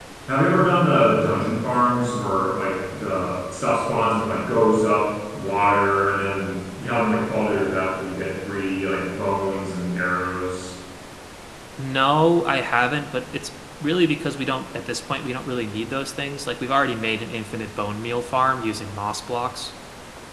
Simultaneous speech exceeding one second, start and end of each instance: none

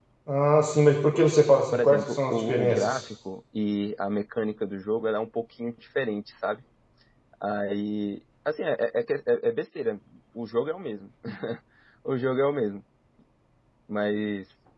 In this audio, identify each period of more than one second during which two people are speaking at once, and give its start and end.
1.7-3.0

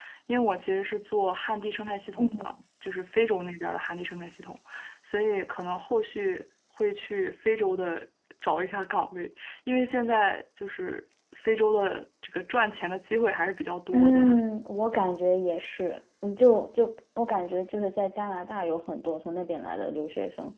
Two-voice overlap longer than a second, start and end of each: none

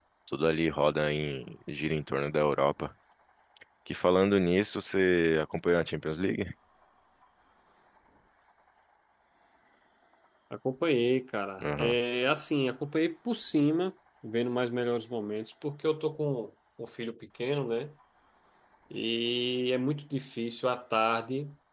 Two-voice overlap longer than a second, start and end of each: none

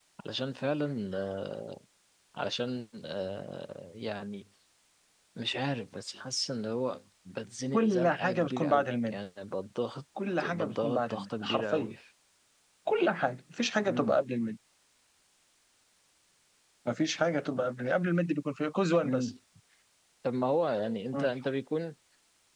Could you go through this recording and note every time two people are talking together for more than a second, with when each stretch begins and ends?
7.7-9.2, 10.4-11.9

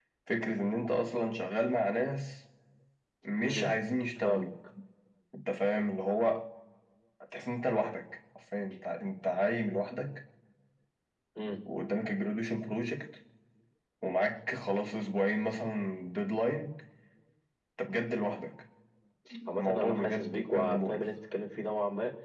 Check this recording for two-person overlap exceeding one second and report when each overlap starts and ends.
19.6-21.1

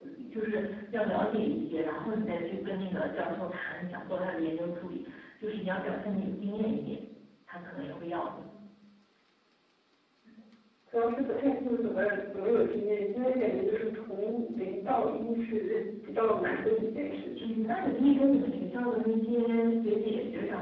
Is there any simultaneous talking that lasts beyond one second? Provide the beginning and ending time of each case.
none

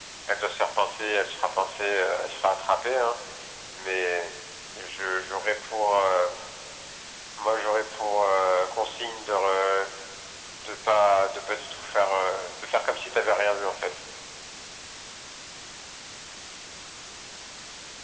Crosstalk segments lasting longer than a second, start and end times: none

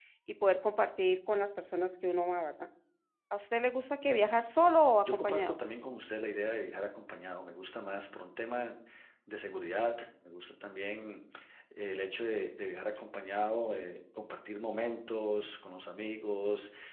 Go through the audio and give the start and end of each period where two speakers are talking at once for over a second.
none

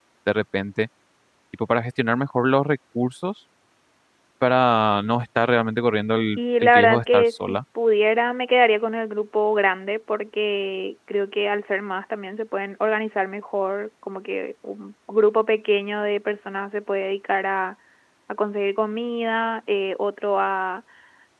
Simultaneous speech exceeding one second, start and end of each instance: 6.4-7.6

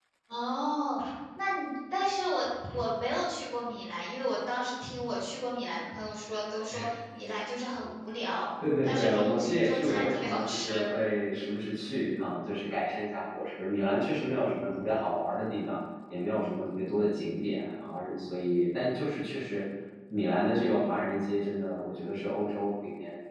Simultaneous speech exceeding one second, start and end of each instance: 8.8-10.9

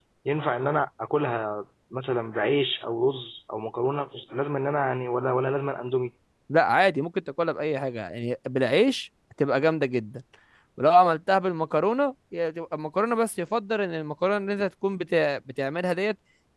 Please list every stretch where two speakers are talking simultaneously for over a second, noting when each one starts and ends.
none

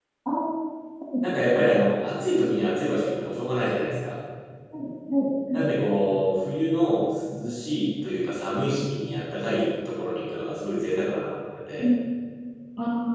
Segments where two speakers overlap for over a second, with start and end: none

